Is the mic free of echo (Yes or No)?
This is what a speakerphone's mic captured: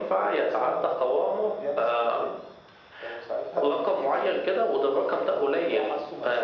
No